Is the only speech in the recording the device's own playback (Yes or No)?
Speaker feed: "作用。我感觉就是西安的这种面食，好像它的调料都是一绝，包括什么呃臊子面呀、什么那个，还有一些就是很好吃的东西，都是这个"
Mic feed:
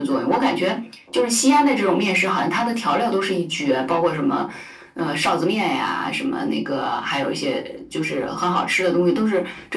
Yes